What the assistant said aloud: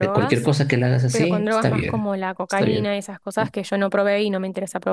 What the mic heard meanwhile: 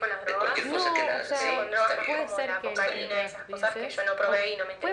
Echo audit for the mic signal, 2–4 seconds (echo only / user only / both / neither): both